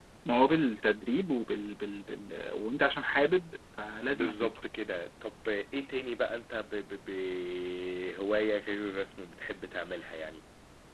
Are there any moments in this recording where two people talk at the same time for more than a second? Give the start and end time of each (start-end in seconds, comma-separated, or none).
none